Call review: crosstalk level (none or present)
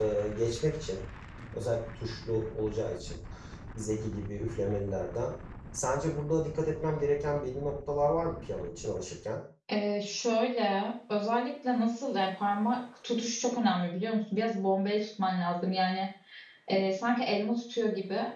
none